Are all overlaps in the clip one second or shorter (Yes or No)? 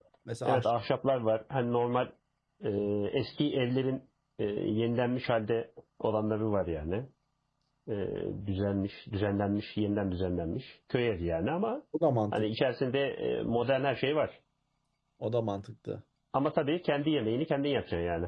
Yes